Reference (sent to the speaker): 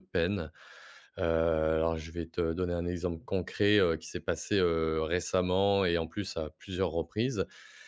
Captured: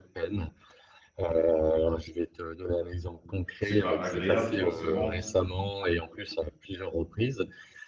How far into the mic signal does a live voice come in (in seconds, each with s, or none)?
3.6 s